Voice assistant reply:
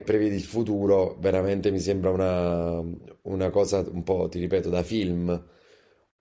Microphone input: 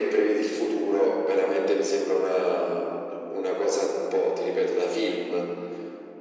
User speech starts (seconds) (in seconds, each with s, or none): none